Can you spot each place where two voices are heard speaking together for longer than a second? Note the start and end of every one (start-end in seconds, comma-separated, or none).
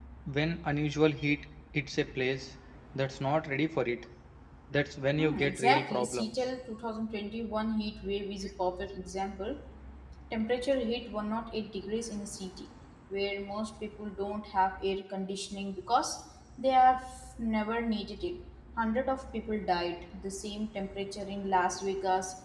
5.2-6.4